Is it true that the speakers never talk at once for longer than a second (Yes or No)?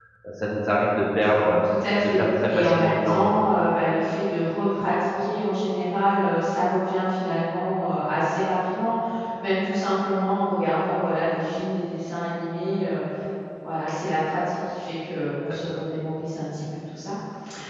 No